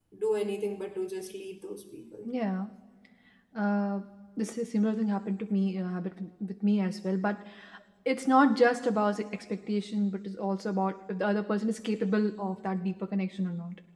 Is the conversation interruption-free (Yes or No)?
Yes